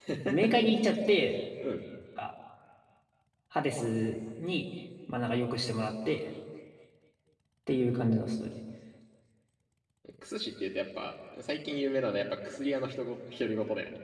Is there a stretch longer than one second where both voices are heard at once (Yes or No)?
No